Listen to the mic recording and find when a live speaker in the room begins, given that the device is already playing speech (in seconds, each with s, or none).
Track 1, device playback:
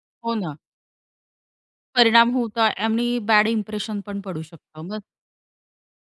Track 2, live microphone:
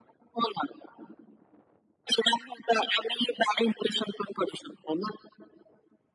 none